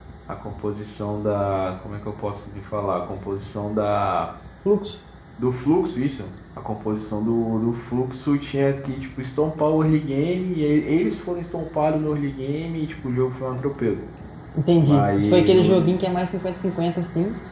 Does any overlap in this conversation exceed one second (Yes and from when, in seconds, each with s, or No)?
Yes, from 14.8 s